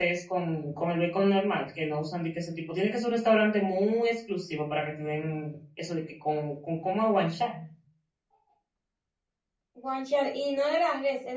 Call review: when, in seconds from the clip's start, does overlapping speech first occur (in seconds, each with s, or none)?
none